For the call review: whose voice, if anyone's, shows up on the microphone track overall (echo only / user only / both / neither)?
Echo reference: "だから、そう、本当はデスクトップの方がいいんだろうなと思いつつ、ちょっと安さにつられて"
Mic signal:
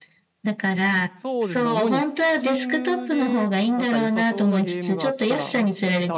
both